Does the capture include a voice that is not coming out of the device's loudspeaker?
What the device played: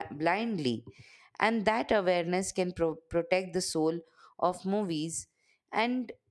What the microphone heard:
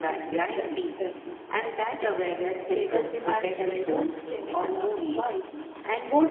Yes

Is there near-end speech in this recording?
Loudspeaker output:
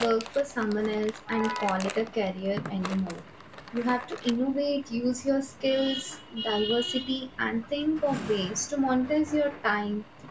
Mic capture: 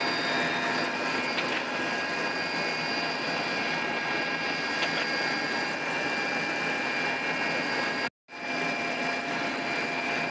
No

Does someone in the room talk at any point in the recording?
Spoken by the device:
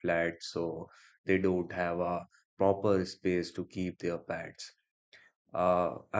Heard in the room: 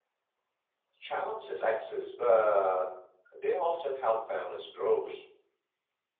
Yes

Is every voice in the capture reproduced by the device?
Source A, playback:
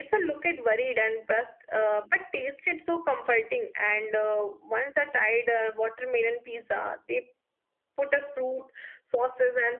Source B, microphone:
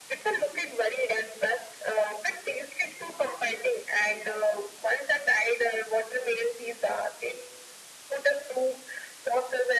Yes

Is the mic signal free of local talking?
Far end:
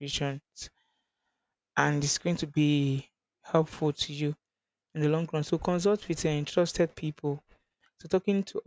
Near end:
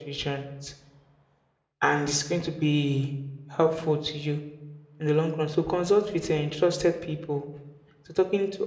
Yes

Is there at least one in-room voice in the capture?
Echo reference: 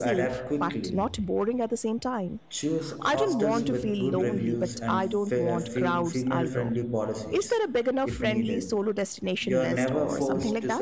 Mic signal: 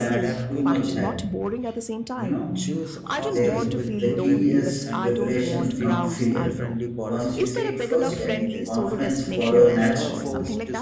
Yes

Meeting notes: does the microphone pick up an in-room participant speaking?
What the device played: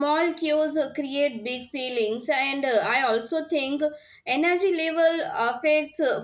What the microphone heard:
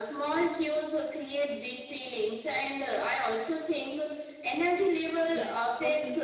Yes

